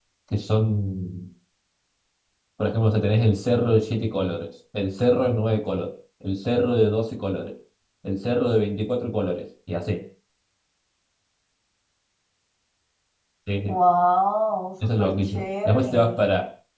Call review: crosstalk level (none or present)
present